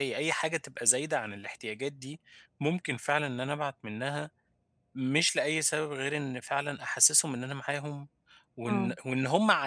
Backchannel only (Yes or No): Yes